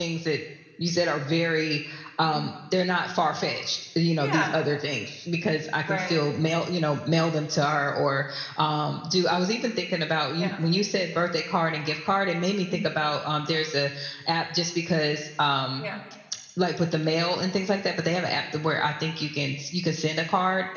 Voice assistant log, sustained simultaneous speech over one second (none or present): none